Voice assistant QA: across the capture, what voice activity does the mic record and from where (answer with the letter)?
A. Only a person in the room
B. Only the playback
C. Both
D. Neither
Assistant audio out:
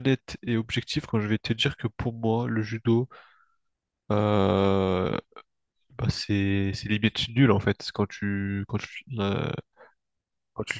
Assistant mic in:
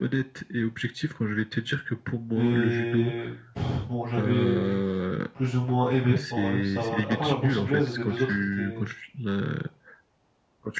C